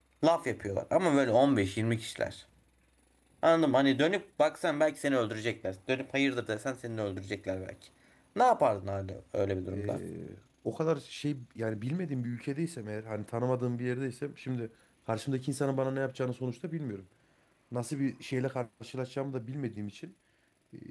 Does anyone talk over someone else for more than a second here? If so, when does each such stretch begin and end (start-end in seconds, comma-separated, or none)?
none